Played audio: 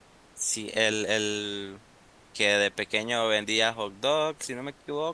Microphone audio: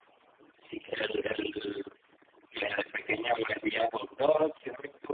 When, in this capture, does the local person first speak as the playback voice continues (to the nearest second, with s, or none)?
none